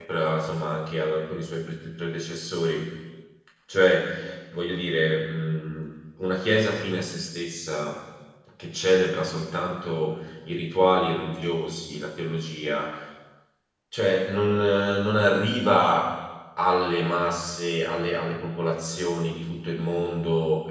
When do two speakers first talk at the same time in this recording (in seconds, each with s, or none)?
none